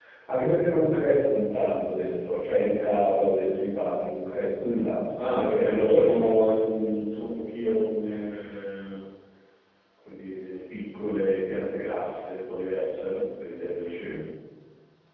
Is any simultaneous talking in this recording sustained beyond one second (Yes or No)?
Yes